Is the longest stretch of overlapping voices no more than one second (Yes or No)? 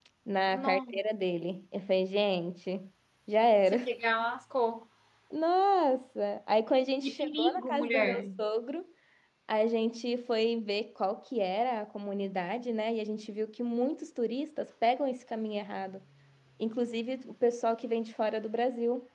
No